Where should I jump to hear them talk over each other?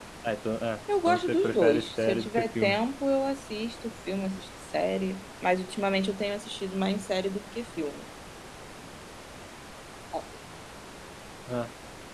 1.1 s

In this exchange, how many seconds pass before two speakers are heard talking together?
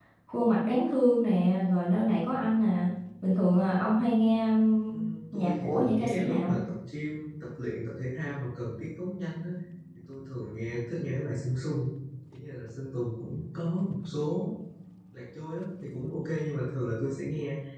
5.3 s

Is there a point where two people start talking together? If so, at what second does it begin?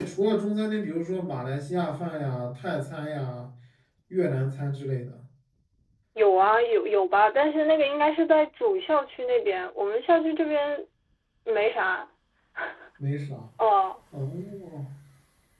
none

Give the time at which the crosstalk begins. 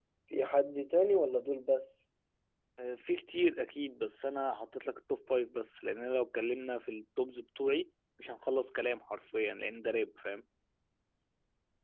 none

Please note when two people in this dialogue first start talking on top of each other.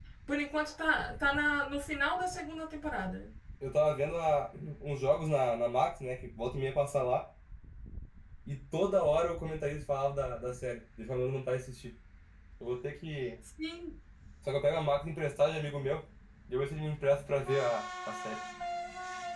none

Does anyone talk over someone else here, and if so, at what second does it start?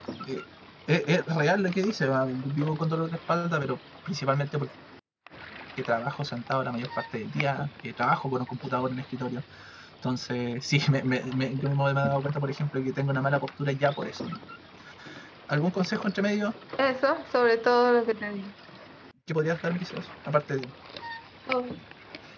none

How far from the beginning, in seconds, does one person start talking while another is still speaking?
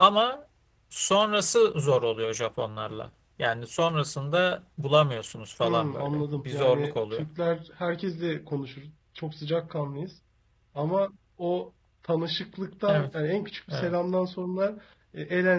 5.6 s

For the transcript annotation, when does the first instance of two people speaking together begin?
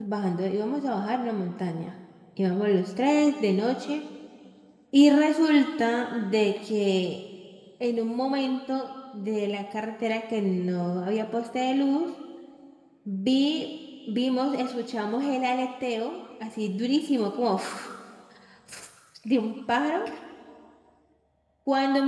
none

